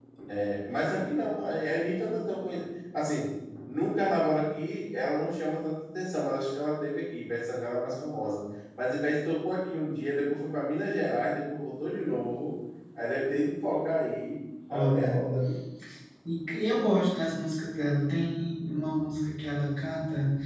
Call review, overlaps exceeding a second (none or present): none